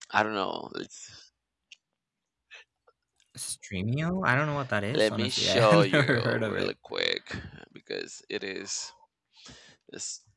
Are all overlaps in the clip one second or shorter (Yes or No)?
No